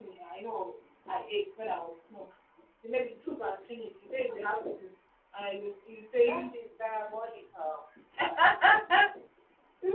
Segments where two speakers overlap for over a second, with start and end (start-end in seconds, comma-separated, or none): none